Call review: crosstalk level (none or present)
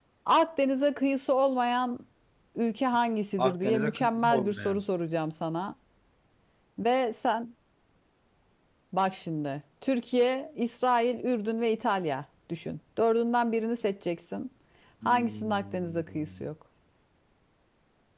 present